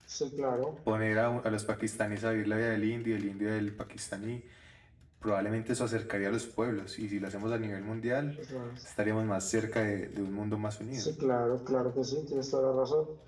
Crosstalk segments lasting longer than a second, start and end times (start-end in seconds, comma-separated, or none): none